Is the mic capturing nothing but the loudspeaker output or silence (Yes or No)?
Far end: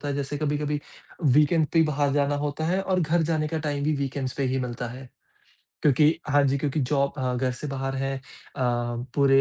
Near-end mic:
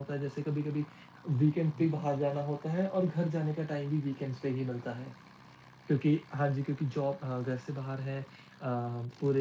No